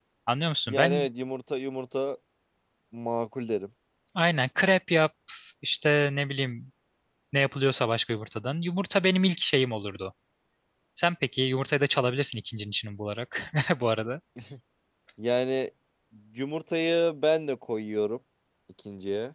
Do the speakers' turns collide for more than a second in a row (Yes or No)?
No